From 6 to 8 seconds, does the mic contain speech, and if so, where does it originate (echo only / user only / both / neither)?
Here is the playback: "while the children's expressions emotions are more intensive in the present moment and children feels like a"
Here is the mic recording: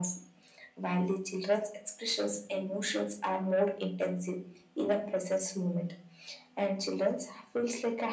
echo only